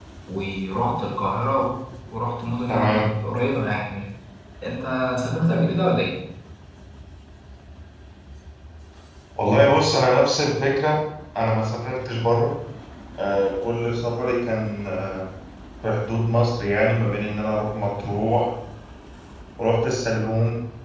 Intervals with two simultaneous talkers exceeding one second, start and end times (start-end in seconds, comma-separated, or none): none